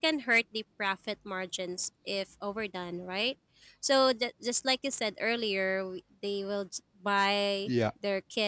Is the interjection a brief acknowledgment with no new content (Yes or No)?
Yes